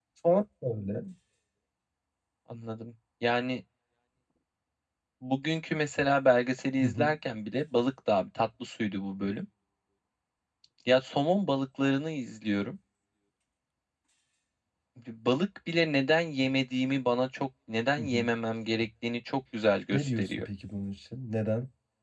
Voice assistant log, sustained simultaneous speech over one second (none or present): none